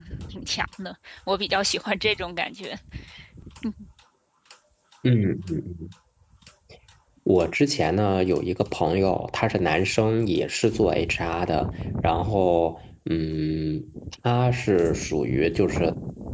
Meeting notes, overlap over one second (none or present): none